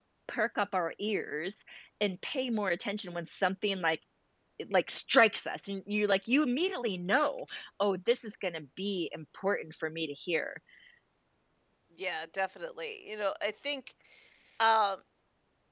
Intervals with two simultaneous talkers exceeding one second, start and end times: none

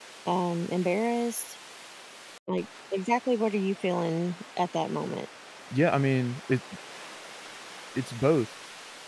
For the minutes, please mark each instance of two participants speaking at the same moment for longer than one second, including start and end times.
none

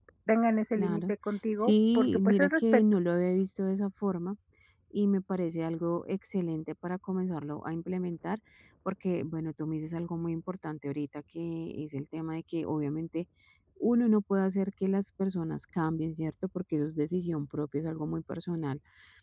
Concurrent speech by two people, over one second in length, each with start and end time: 1.6-2.8

